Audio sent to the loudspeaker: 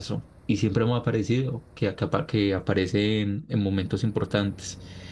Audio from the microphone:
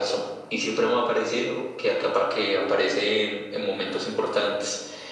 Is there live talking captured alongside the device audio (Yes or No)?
No